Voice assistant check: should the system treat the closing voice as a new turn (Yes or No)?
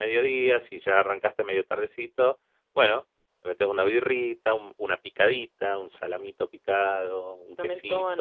Yes